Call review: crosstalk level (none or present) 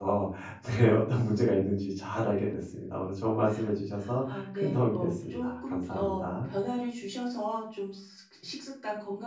present